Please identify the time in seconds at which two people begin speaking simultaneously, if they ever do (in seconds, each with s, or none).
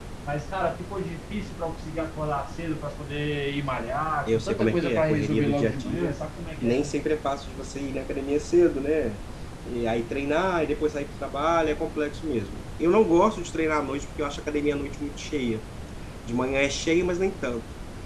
4.3 s